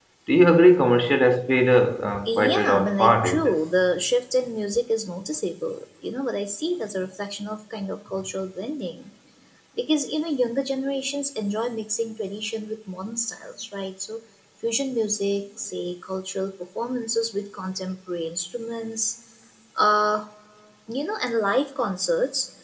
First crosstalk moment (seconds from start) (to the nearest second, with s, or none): 2 s